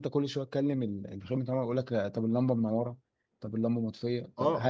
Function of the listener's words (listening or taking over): taking over